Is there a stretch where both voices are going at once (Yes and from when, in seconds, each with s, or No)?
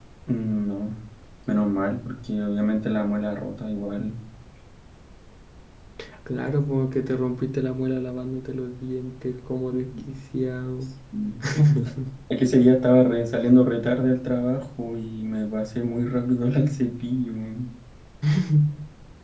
No